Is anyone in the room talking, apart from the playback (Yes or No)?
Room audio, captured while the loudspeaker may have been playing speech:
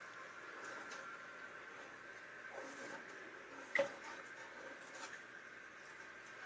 No